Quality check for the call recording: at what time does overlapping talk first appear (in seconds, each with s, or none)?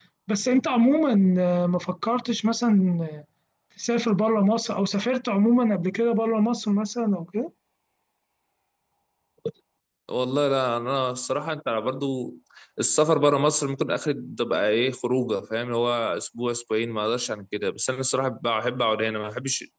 none